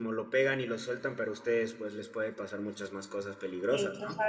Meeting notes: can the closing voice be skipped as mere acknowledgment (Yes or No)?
No